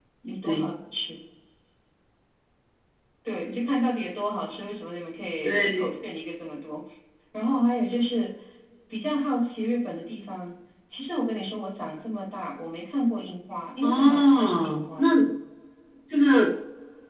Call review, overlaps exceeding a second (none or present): present